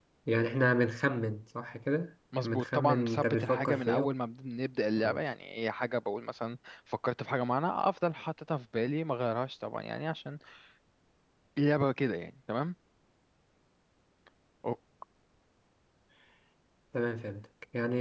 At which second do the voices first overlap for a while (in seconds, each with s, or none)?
2.4 s